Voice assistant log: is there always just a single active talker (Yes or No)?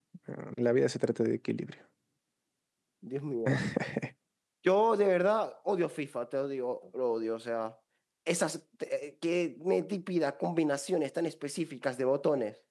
Yes